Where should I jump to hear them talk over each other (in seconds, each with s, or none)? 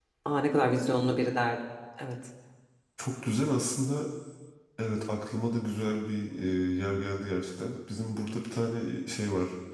none